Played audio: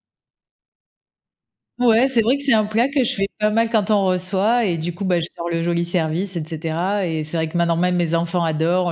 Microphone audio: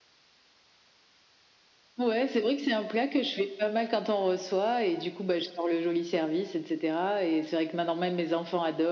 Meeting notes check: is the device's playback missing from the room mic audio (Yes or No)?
No